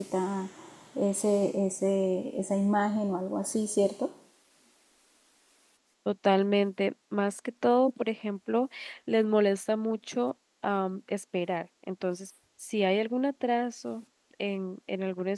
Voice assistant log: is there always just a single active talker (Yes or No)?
Yes